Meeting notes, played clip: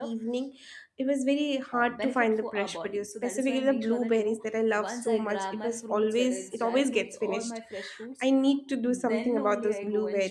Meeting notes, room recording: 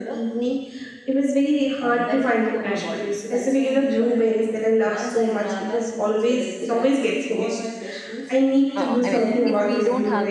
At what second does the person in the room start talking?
9 s

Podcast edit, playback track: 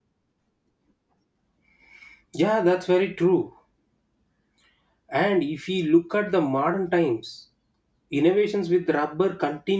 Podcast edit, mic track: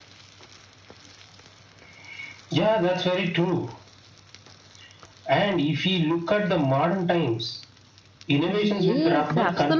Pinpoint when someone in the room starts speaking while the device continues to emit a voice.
8 s

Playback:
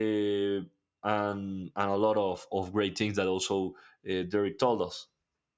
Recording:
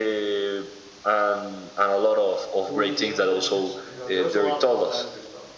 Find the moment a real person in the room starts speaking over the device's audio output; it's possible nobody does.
3 s

